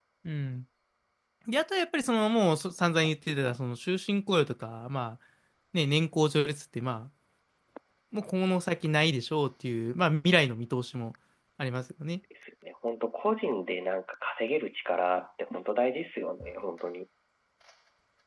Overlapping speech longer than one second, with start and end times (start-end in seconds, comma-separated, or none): none